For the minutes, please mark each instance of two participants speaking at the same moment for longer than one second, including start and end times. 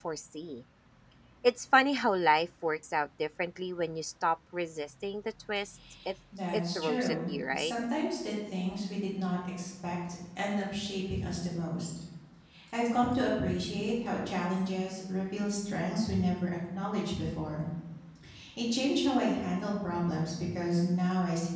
6.5-7.7

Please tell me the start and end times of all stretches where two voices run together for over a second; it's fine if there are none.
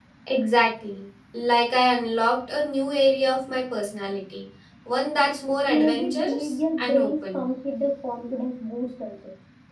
5.7-7.5

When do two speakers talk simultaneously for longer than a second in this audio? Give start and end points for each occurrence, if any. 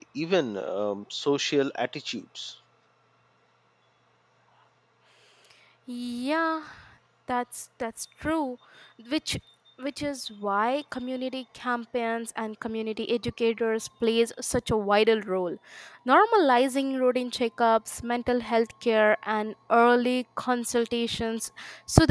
none

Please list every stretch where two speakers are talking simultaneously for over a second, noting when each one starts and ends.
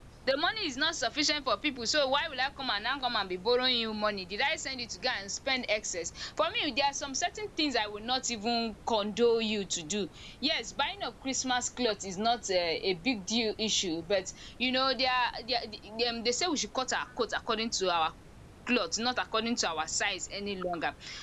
none

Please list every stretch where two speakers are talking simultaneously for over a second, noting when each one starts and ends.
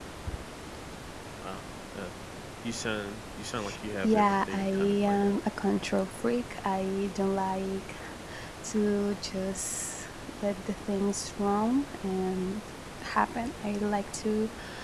4.0-5.4

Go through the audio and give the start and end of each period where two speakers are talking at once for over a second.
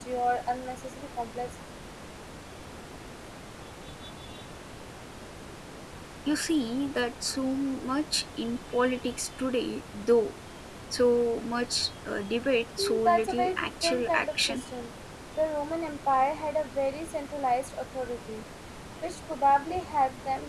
12.8-14.6

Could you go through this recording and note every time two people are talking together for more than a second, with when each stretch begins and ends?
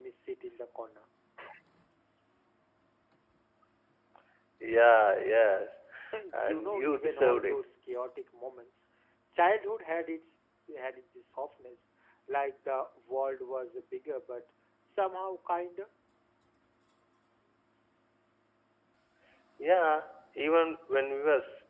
6.3-7.6

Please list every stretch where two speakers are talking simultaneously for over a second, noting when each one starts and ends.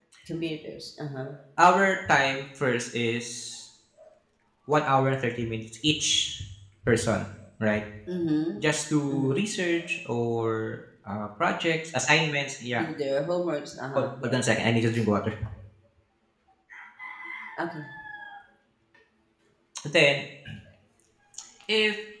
none

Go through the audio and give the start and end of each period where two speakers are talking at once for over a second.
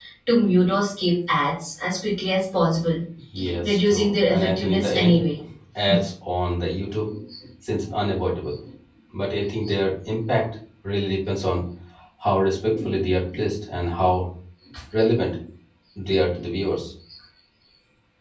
3.6-5.2

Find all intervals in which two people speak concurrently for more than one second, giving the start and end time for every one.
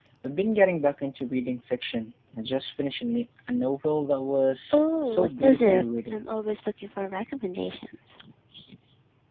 4.7-6.2

